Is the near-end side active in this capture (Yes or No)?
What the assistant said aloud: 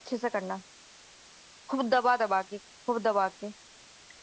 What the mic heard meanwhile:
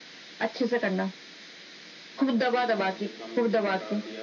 Yes